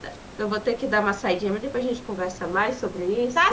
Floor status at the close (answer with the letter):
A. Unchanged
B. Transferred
B